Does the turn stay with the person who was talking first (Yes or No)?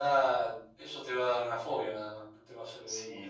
No